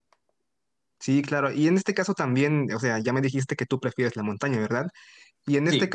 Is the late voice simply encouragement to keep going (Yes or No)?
Yes